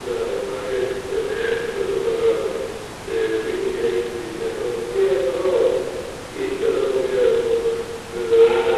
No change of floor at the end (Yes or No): Yes